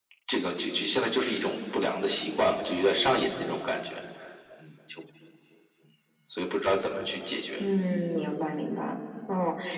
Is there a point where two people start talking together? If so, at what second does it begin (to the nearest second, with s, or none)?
none